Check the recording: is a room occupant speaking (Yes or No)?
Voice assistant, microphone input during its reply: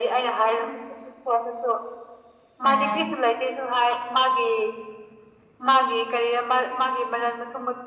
Yes